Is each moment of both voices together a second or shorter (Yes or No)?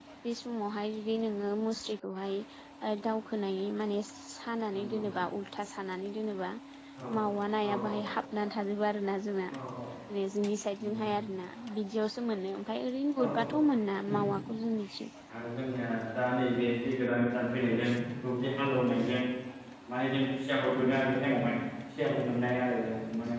Yes